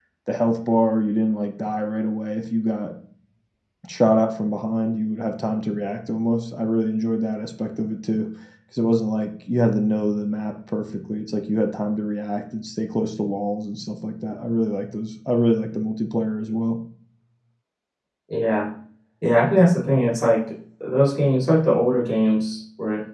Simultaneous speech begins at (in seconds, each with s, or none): none